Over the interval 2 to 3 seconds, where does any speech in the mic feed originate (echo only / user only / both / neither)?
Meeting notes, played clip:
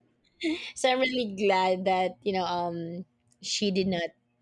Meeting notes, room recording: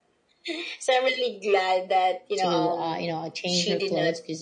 both